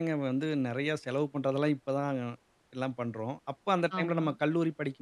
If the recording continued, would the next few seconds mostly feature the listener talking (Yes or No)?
No